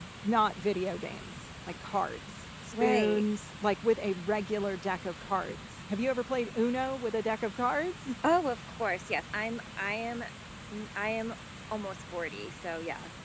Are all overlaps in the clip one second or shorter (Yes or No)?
Yes